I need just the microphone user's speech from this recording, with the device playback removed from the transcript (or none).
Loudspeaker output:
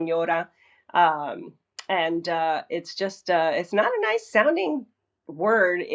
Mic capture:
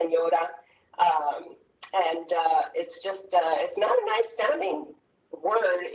none